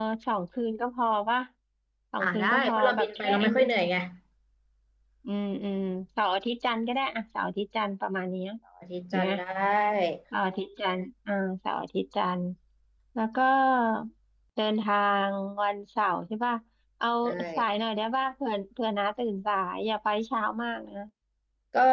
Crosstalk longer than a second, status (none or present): present